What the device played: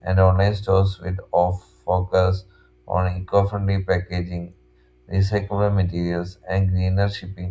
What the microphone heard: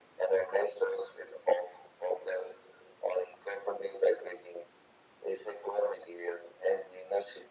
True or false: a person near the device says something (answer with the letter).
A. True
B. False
B